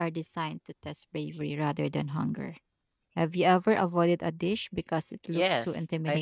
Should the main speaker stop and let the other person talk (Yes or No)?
Yes